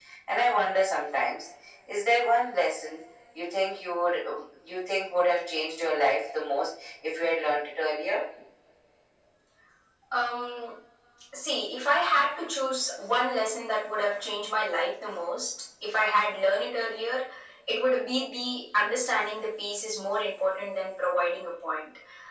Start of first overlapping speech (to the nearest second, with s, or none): none